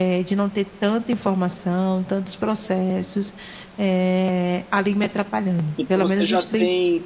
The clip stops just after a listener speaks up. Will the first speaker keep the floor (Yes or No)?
No